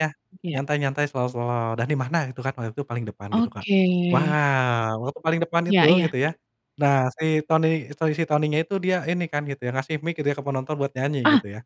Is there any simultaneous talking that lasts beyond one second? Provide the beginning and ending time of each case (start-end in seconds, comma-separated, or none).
none